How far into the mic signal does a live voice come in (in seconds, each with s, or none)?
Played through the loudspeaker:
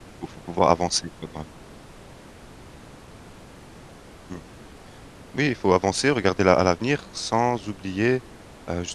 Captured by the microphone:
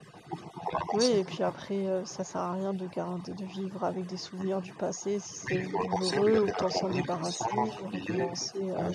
0.9 s